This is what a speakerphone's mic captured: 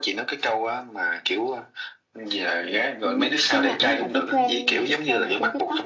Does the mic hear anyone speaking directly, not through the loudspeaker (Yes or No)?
Yes